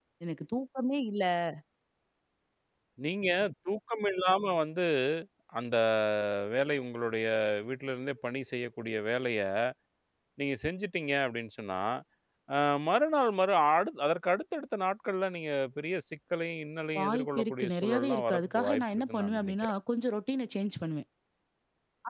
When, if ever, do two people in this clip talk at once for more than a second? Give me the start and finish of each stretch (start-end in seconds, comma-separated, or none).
17.0-19.7